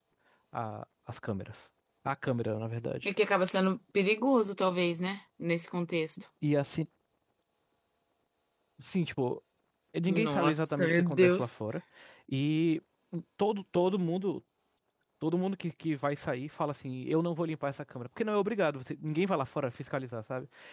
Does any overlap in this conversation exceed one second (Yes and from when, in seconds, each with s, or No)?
Yes, from 10.1 s